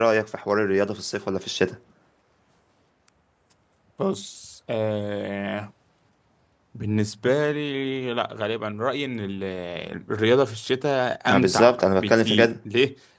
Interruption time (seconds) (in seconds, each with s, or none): 11.3 s